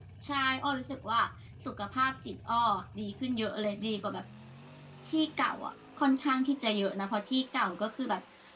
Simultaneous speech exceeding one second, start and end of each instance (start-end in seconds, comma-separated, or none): none